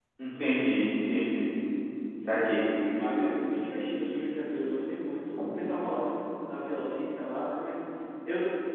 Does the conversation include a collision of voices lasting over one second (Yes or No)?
No